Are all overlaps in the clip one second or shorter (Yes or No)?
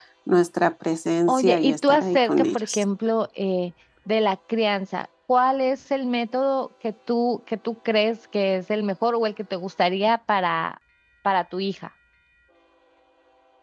No